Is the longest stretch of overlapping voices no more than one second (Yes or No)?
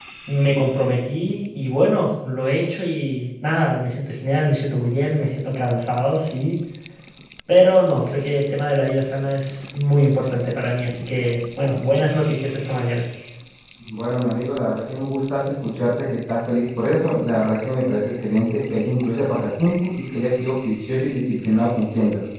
Yes